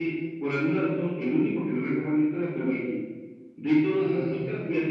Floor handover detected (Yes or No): No